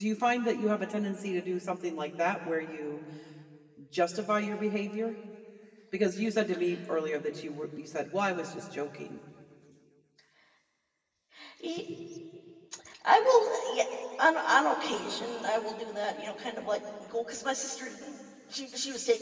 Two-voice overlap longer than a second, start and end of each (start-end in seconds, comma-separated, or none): none